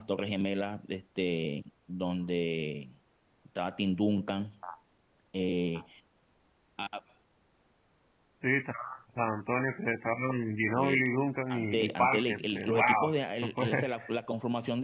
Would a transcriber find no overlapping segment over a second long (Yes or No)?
No